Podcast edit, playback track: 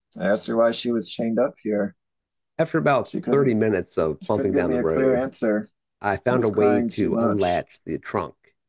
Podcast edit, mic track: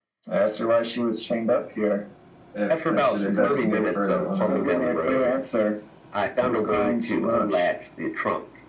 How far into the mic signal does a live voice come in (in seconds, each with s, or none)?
2.5 s